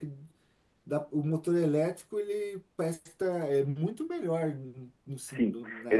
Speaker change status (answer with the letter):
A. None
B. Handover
B